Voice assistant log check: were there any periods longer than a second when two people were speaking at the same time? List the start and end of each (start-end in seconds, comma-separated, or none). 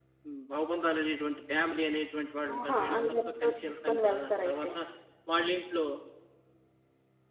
2.5-4.7